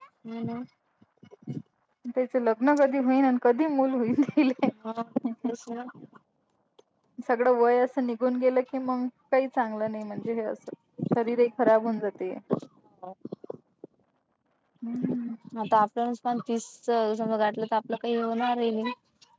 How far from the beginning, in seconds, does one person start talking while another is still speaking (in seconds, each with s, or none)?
none